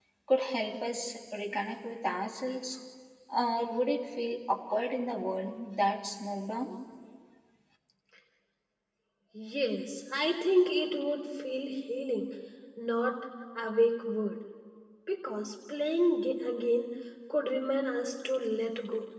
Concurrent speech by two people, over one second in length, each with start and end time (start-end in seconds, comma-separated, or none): none